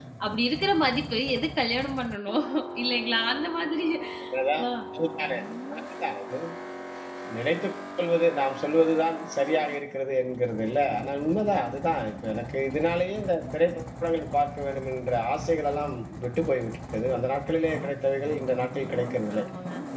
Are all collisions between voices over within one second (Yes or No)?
Yes